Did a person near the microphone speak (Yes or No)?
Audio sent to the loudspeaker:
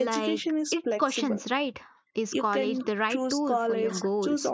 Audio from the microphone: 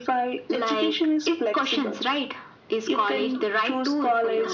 No